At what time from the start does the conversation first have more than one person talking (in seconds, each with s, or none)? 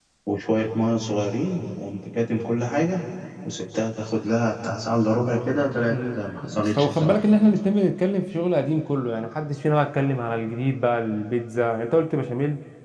5.9 s